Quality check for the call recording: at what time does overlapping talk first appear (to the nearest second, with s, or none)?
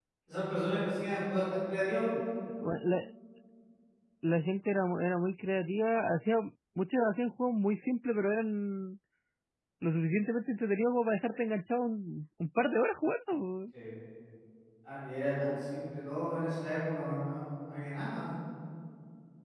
none